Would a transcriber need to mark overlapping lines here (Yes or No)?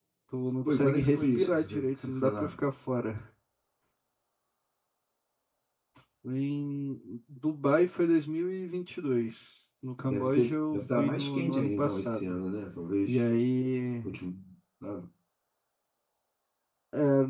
Yes